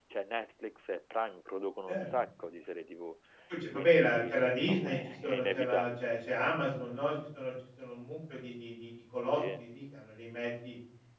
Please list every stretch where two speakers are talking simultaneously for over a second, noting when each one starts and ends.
3.7-6.0

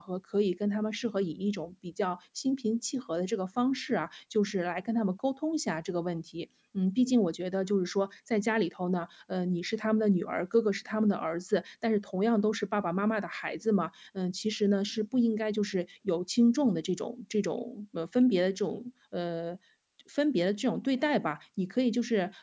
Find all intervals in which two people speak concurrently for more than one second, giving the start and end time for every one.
none

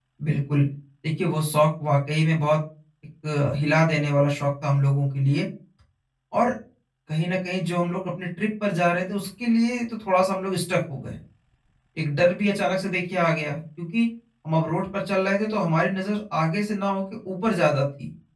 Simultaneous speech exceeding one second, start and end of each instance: none

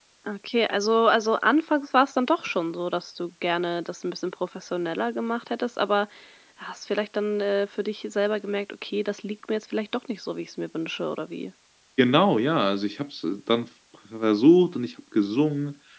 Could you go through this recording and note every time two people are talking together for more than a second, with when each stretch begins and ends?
none

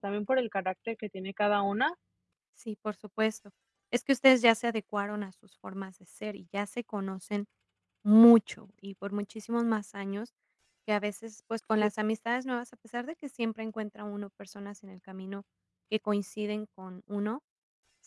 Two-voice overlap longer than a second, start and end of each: none

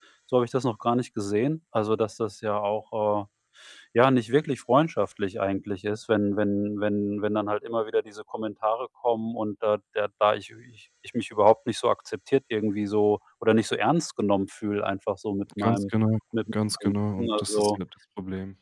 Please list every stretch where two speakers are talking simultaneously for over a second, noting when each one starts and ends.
16.5-17.8

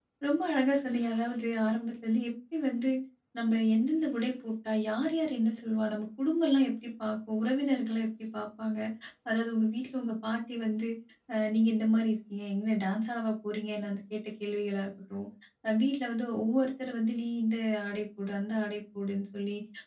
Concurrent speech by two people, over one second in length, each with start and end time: none

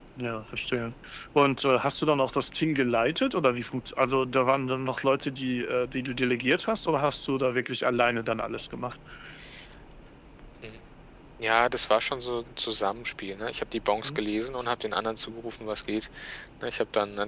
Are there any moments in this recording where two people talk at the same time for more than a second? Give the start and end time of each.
none

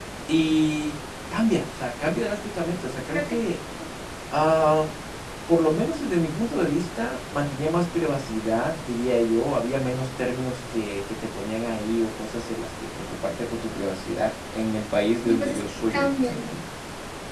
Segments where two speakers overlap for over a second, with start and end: 15.2-16.5

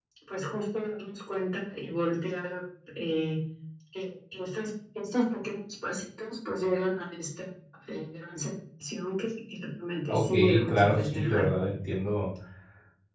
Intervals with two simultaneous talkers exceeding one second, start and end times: 10.1-11.5

